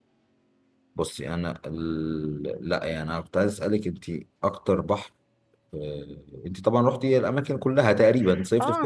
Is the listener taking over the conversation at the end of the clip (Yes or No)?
Yes